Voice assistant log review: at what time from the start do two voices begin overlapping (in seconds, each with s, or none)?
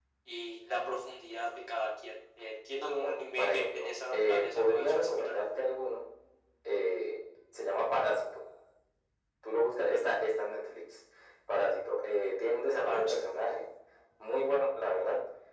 3.0 s